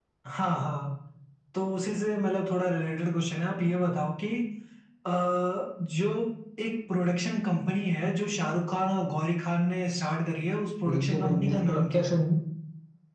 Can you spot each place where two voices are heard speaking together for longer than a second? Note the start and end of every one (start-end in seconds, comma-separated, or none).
10.8-12.2